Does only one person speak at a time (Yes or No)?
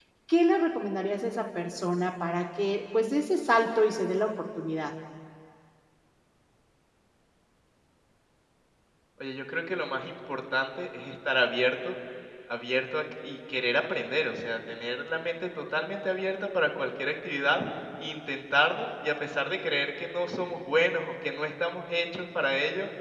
Yes